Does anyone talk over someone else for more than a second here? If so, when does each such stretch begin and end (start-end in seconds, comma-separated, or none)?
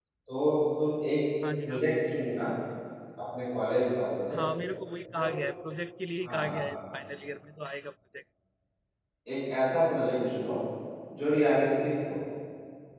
none